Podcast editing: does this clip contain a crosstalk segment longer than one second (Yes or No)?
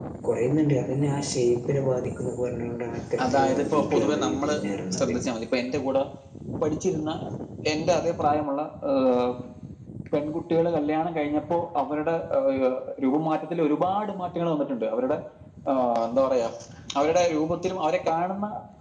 Yes